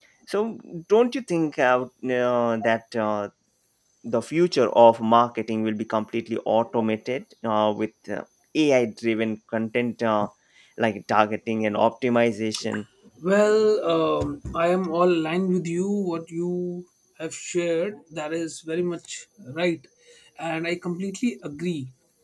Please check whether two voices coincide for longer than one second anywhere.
No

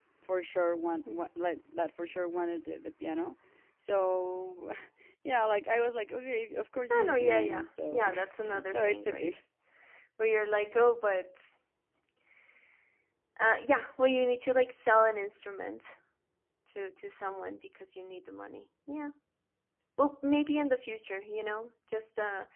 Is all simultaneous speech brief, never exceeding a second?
No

